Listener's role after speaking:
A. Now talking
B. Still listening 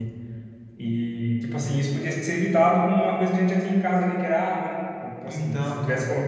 B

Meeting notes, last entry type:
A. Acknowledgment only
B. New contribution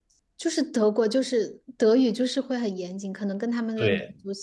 B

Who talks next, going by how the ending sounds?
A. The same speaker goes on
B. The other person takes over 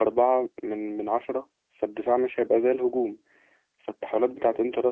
A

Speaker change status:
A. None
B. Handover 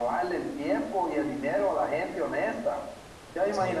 A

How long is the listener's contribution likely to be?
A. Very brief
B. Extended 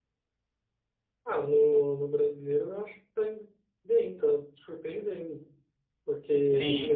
A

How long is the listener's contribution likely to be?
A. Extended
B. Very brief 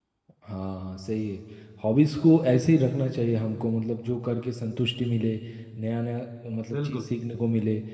B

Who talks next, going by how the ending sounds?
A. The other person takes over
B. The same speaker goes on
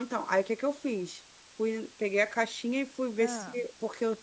B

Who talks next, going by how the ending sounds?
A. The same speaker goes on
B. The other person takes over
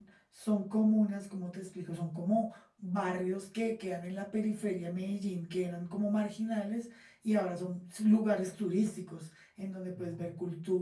A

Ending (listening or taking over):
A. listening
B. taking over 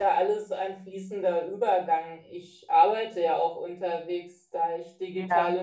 A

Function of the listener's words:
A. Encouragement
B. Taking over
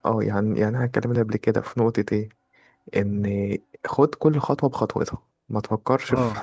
B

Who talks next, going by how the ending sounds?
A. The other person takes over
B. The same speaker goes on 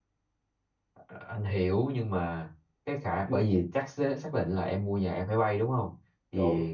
B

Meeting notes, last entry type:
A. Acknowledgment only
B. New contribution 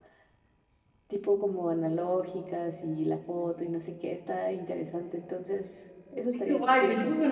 B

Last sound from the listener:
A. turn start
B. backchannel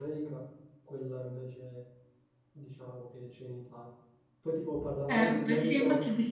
A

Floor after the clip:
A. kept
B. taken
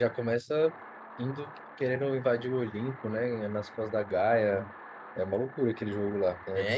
B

